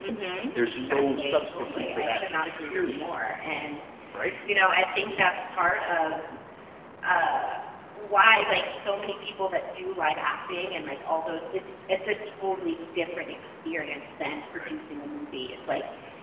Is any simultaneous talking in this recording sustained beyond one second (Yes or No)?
Yes